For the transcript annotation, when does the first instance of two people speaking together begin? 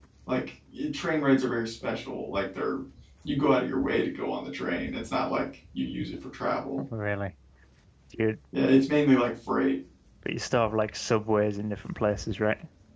none

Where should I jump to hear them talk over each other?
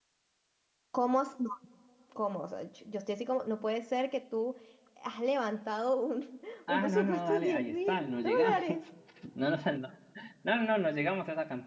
6.7 s

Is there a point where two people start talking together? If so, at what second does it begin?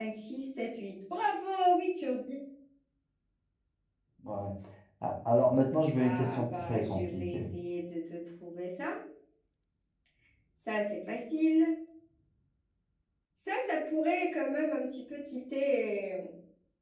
6.0 s

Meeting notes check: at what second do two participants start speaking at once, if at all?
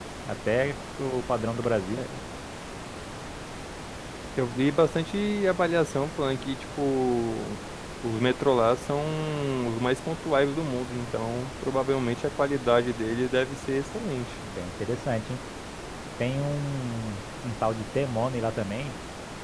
none

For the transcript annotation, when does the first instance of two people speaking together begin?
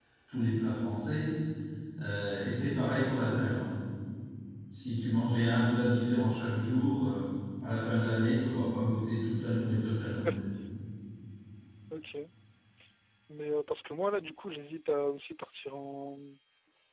none

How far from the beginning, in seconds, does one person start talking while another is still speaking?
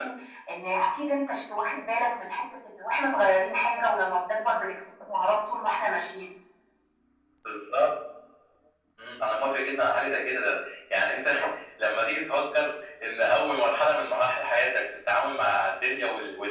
none

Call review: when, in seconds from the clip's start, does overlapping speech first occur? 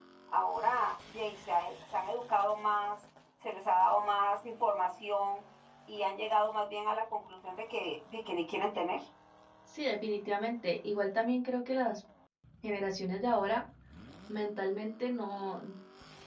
none

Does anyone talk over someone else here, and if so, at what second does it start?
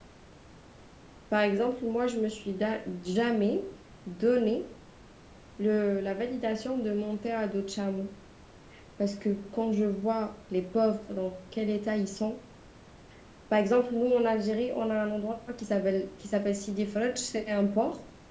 none

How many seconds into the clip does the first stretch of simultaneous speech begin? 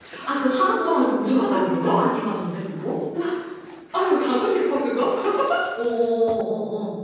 0.7 s

